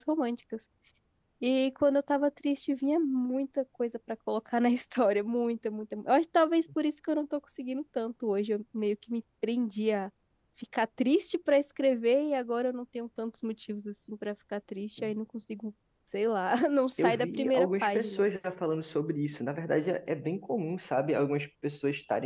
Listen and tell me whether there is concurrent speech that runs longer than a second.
Yes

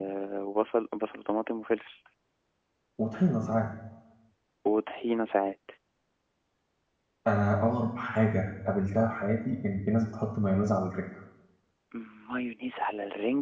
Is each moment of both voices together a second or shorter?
Yes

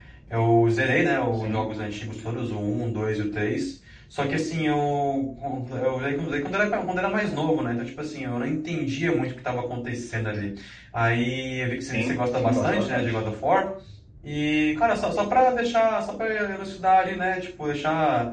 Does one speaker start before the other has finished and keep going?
Yes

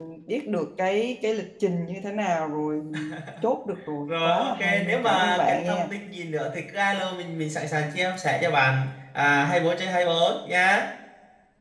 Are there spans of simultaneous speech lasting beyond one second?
Yes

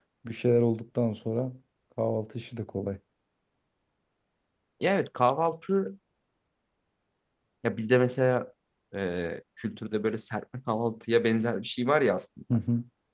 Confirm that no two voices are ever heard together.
Yes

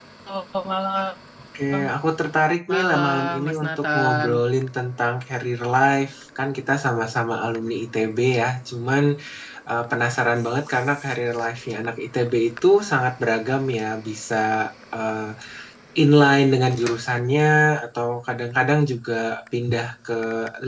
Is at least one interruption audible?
Yes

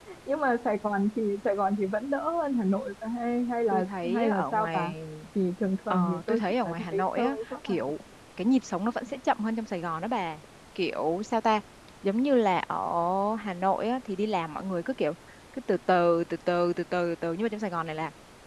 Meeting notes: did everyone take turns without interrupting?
No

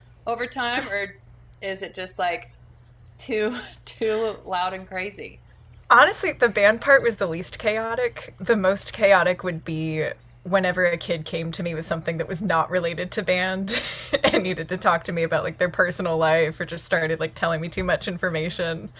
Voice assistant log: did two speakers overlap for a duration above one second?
No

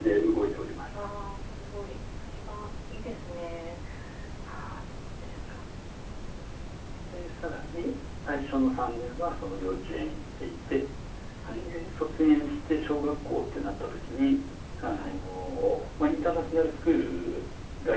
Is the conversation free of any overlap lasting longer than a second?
Yes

